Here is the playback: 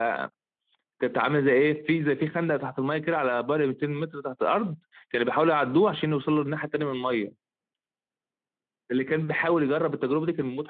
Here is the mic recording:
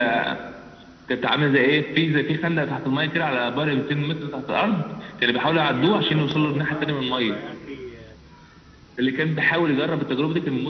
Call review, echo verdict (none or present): present